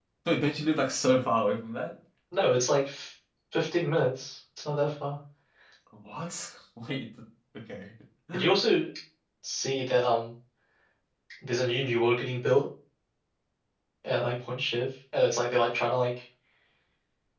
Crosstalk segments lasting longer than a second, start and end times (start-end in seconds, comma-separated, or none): none